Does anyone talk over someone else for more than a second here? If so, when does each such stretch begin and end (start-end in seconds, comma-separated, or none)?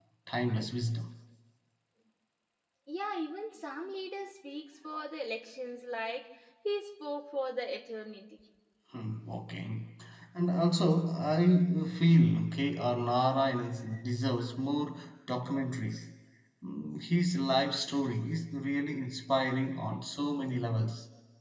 none